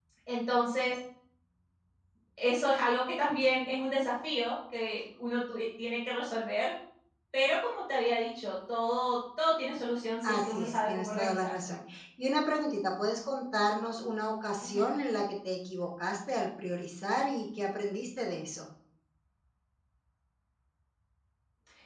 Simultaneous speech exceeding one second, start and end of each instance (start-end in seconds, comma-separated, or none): 10.2-11.7